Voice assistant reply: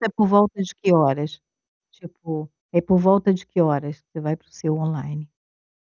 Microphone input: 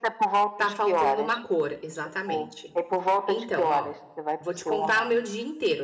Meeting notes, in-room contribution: present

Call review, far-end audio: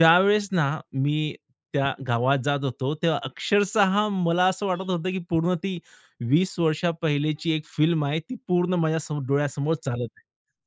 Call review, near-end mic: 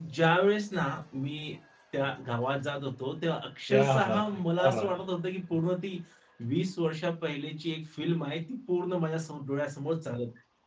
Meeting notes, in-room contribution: present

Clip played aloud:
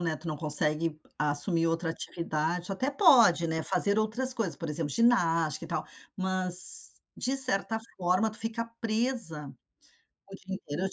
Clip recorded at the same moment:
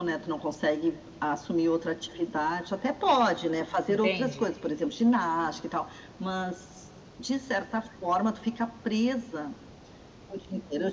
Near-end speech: present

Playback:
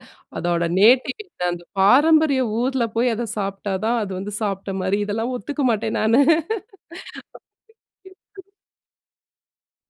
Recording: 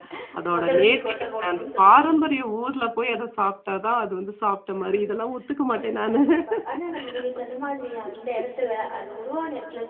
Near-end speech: present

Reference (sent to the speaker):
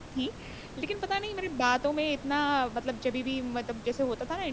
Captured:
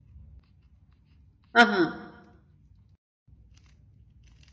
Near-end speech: present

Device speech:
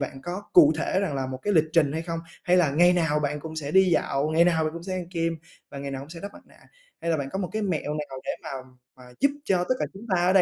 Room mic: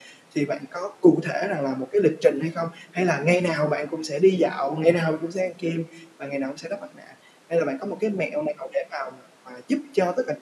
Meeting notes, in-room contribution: none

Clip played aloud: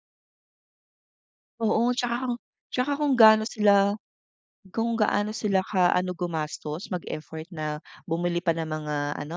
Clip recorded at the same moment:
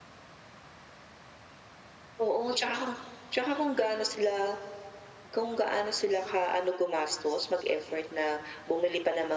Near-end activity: none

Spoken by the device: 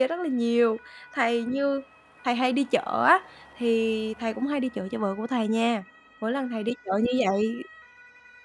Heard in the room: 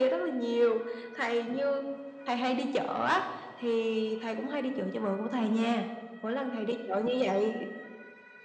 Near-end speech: none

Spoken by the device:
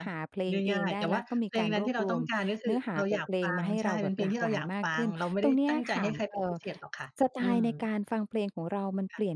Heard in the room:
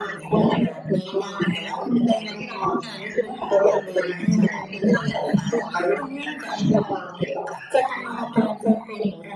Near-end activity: none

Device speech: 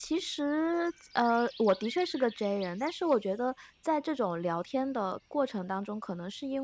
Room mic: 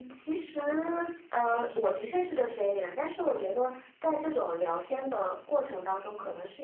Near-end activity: none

